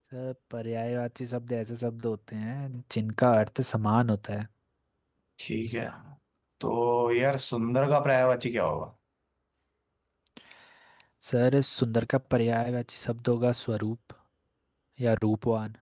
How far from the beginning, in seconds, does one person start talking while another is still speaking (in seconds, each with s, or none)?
none